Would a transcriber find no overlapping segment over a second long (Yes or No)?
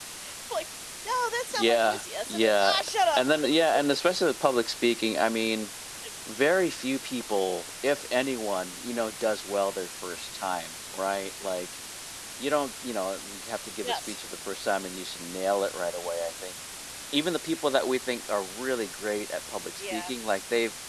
No